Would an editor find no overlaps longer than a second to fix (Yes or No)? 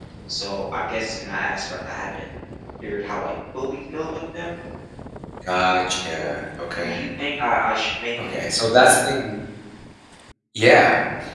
Yes